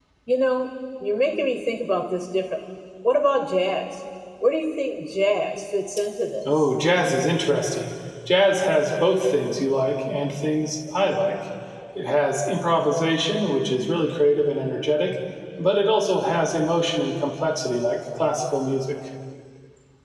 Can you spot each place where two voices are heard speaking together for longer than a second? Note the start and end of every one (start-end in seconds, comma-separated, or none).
none